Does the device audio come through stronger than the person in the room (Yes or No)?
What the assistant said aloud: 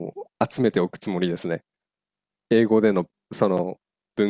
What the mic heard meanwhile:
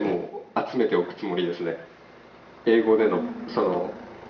Yes